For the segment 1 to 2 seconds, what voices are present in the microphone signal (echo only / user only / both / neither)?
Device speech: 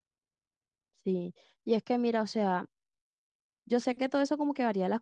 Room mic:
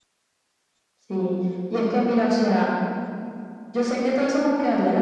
echo only